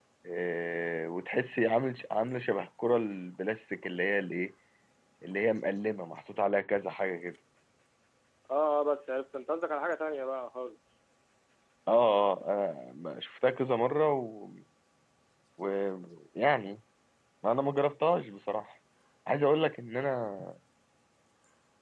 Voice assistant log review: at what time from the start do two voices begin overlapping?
none

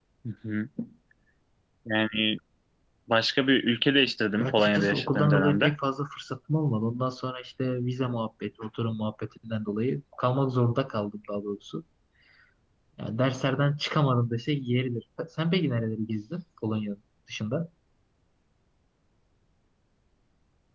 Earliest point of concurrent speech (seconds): 4.4 s

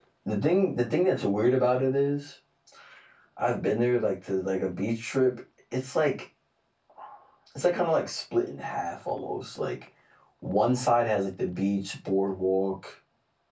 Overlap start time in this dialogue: none

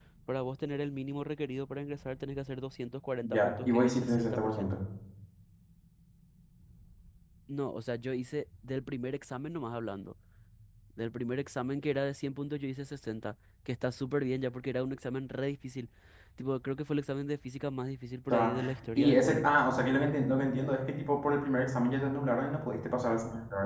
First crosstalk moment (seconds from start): 3.2 s

